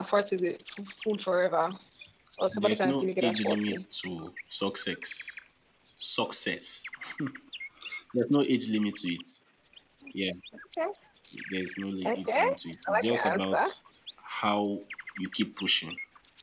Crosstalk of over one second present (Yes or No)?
Yes